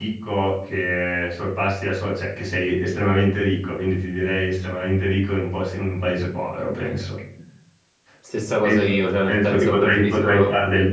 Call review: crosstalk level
present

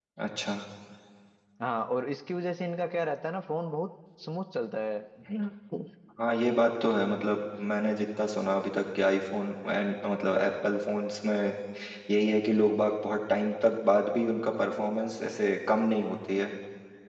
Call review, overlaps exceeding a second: none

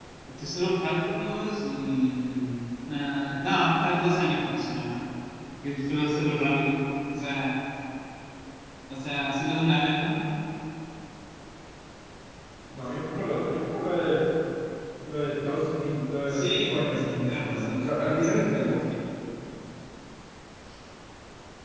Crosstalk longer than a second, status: present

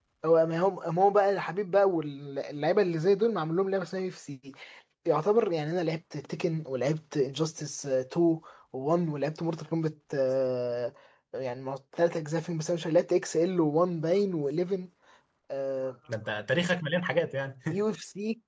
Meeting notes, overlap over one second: none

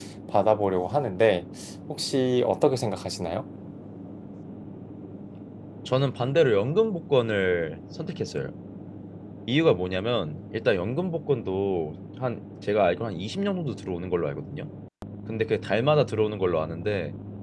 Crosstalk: none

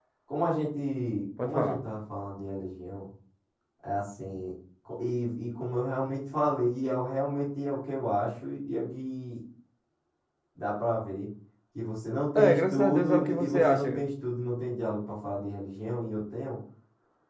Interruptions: present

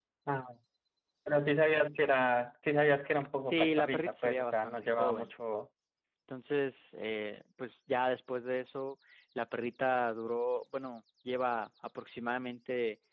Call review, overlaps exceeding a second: present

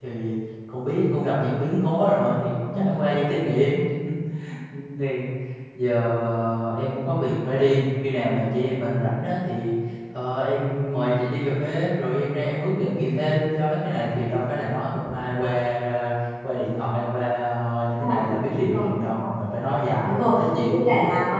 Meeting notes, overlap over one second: present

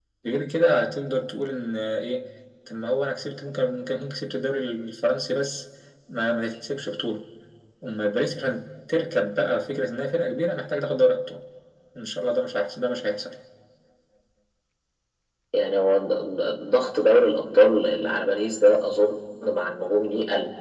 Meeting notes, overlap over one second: none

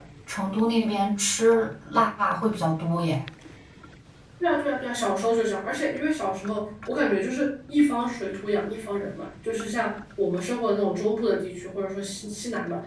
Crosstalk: none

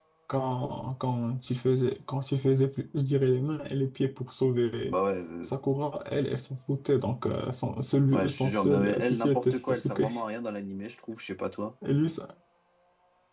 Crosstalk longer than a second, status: present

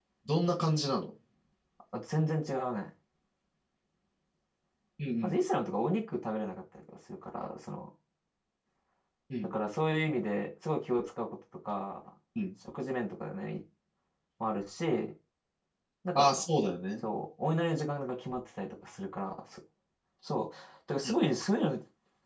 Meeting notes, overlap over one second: none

